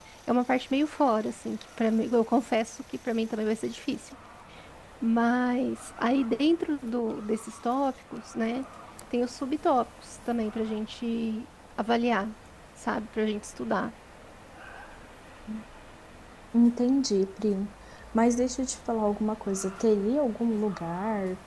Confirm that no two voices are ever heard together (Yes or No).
Yes